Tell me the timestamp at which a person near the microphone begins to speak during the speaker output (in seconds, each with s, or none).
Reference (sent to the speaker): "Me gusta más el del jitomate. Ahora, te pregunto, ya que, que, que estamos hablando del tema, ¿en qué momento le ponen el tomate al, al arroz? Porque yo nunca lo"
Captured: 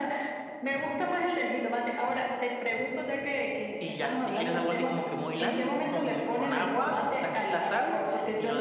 3.8 s